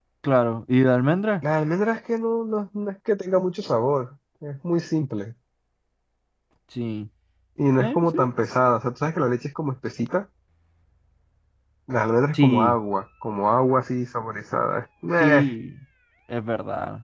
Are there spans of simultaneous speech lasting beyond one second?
No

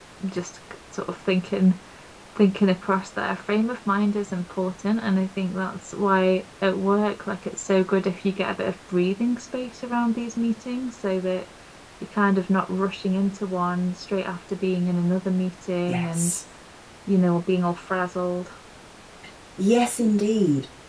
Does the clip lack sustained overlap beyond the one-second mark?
Yes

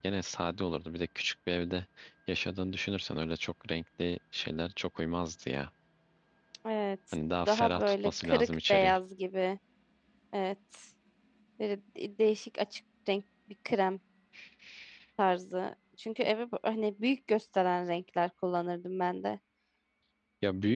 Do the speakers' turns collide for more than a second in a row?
Yes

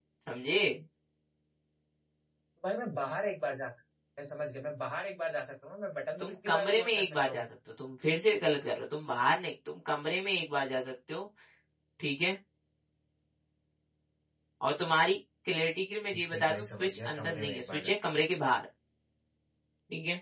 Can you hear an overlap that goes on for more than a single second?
Yes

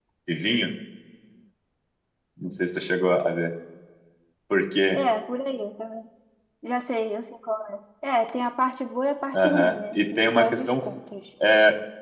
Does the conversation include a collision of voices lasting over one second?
Yes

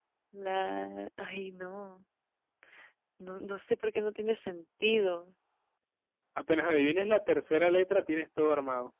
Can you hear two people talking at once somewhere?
No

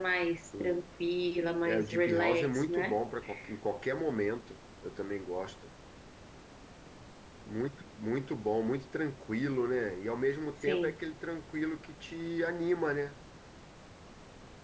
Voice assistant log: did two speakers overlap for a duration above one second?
Yes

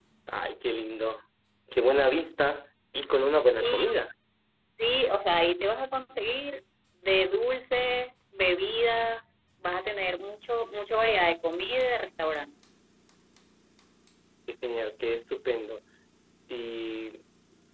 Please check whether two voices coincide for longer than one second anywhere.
No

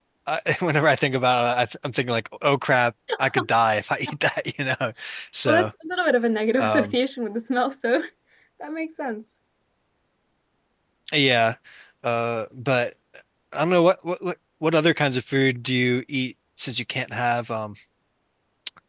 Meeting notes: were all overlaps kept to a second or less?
Yes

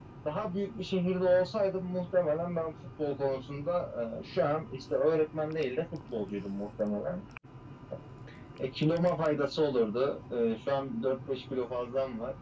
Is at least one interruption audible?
No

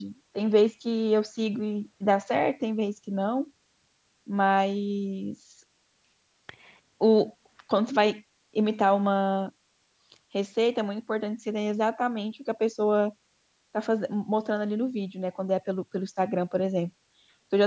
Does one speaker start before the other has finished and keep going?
No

